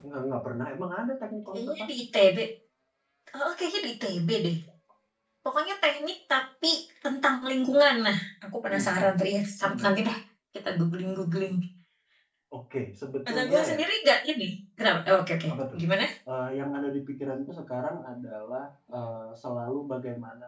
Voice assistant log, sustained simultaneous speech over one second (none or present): none